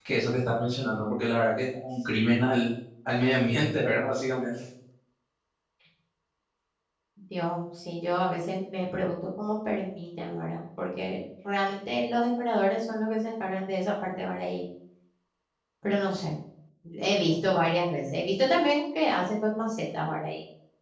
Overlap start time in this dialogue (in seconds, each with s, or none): none